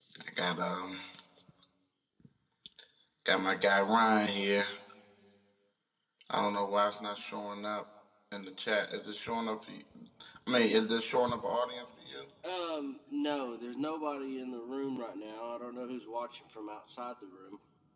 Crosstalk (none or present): none